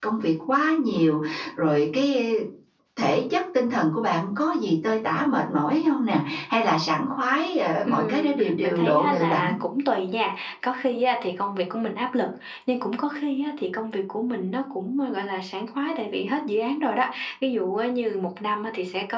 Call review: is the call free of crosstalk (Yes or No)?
No